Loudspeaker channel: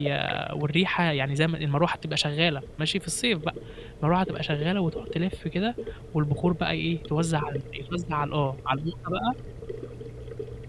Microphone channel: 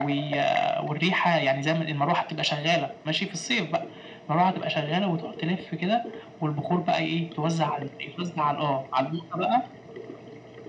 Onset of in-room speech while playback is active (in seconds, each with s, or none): none